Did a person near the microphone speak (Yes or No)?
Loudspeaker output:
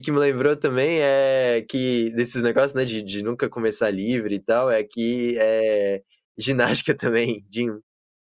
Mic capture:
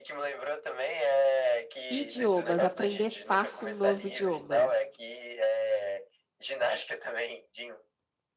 Yes